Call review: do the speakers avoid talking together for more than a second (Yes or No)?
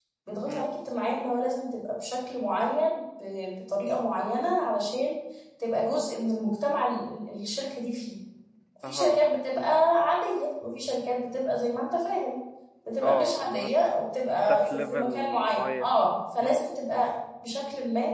No